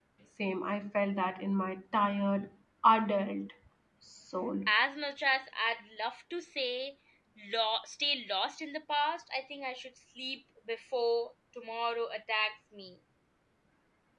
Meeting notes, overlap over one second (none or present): none